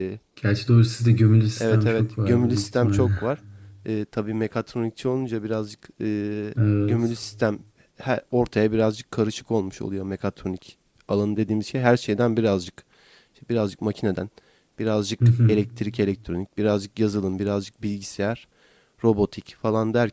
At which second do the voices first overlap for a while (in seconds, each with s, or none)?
1.6 s